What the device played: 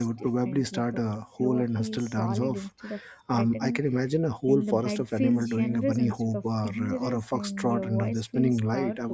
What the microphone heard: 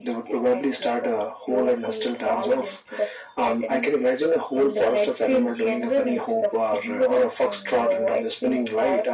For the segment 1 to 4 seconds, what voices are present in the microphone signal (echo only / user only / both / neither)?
echo only